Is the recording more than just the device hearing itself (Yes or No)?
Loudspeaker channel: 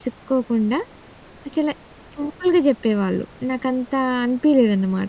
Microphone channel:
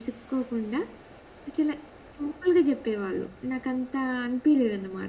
No